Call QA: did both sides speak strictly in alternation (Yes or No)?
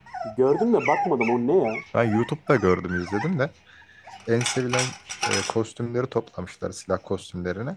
Yes